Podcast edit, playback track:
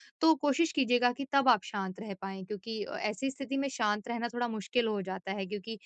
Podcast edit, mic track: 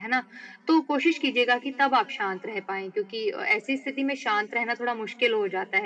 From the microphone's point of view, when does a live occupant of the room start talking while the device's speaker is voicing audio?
none

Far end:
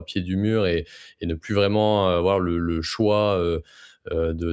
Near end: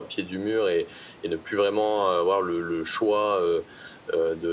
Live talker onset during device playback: none

